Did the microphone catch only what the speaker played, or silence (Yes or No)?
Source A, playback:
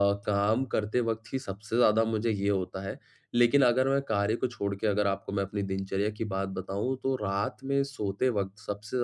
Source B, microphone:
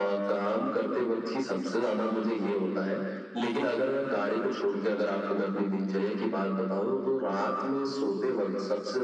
Yes